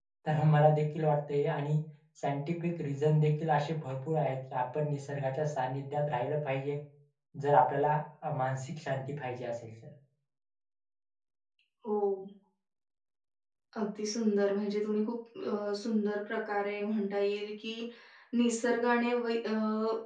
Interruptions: none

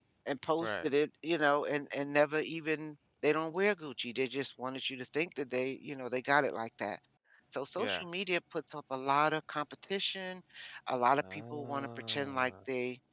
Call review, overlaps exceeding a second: present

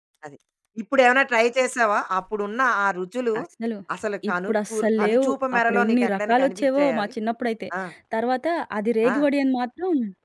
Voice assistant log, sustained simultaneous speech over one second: present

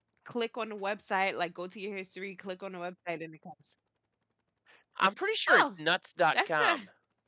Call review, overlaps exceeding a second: none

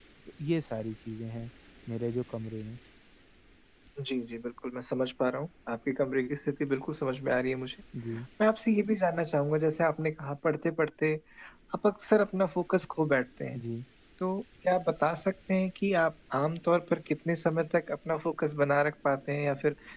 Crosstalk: none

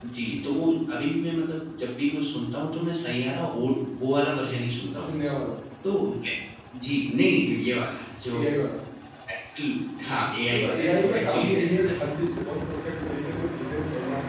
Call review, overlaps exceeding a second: present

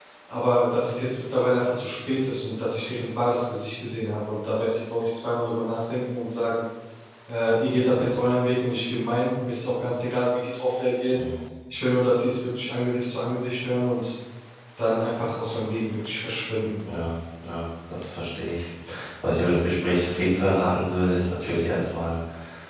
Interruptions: none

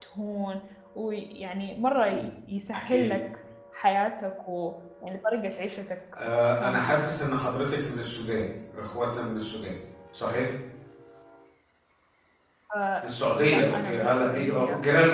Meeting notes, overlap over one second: present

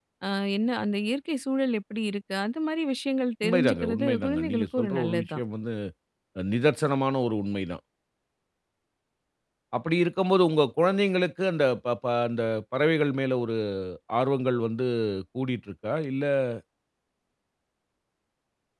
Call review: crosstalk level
present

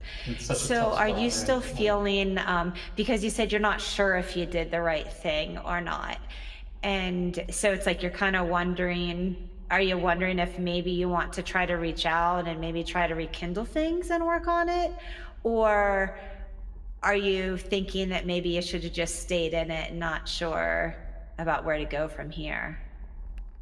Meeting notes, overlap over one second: present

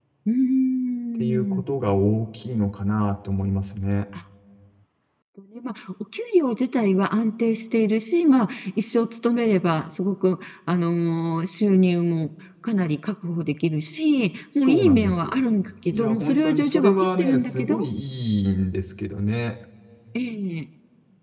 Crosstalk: present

